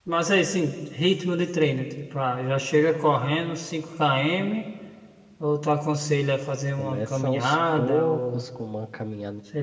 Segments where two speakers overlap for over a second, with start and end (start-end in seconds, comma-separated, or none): 6.8-8.4